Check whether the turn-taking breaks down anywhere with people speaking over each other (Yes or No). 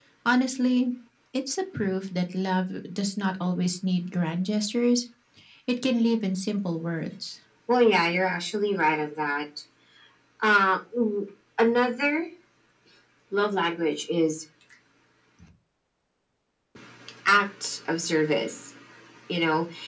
No